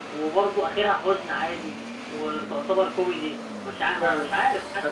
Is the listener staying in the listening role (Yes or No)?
No